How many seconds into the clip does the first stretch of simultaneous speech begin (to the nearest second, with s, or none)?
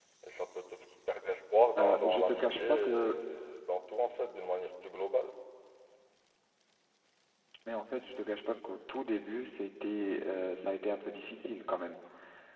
2 s